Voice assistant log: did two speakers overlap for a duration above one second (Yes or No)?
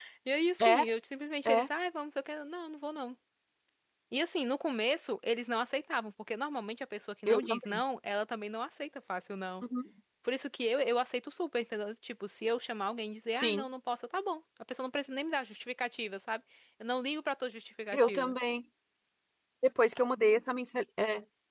No